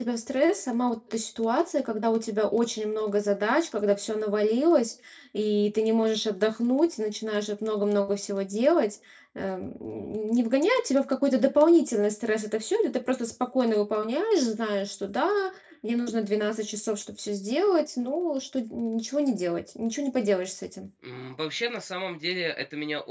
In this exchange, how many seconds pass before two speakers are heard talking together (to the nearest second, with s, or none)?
none